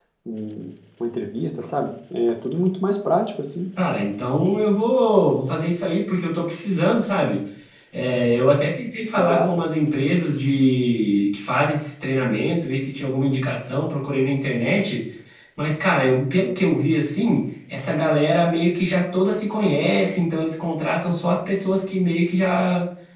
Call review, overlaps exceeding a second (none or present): none